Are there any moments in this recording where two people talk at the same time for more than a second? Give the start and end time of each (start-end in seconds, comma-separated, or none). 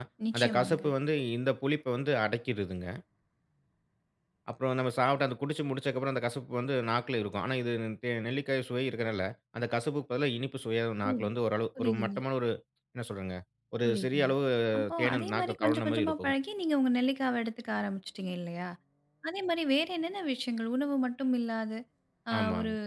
15.0-16.3